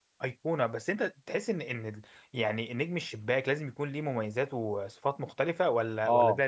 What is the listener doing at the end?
taking over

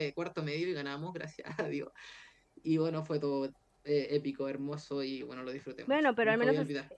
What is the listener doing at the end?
taking over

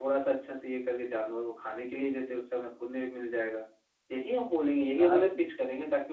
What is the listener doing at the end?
listening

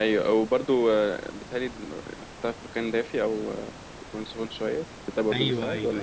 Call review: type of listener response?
taking over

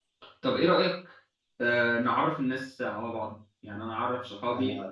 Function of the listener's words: listening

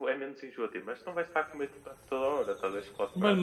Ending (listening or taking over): taking over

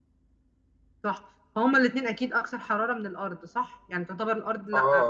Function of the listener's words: taking over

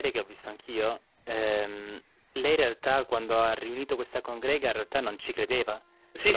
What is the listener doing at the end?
taking over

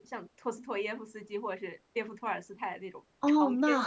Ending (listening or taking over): taking over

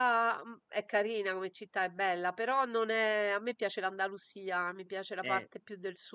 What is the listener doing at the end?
listening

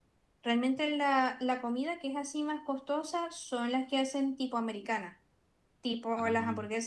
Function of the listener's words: listening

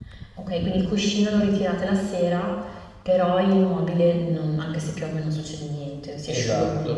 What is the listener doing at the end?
taking over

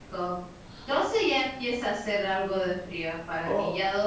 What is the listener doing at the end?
taking over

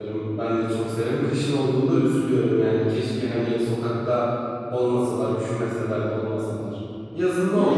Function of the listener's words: taking over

